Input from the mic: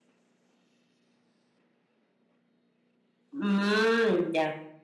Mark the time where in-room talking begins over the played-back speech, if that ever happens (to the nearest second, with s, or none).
3 s